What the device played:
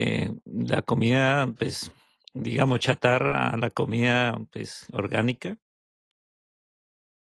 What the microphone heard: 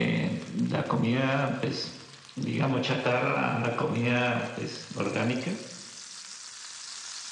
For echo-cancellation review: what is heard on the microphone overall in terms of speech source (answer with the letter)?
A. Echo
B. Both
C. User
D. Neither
A